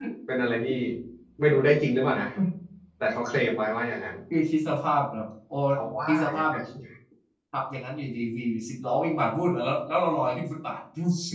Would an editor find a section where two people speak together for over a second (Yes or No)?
No